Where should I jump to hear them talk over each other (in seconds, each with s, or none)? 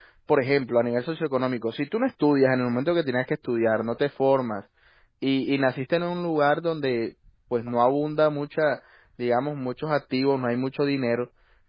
none